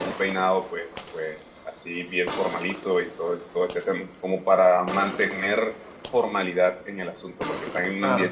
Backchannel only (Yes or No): Yes